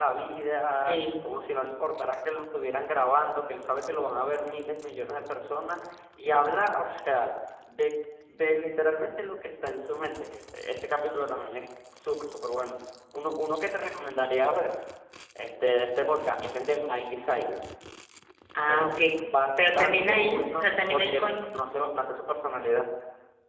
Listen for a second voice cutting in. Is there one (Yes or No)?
Yes